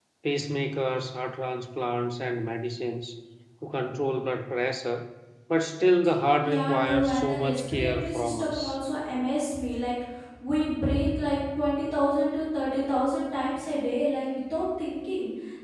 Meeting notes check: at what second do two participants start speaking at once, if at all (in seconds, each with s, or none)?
6.4 s